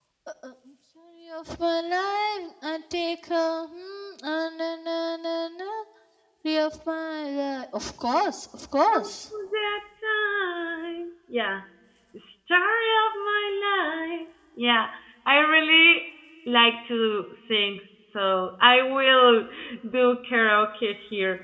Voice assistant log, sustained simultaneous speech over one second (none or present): none